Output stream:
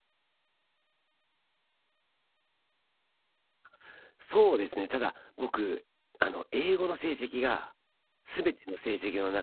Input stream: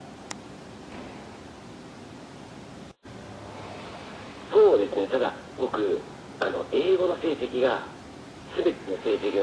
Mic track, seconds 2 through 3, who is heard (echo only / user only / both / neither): neither